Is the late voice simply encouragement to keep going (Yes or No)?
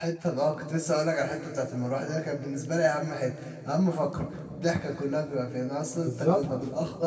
Yes